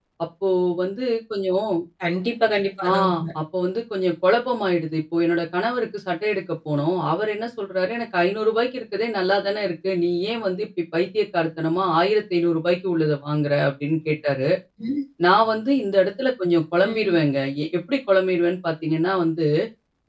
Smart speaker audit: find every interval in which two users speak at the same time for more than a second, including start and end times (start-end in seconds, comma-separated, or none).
none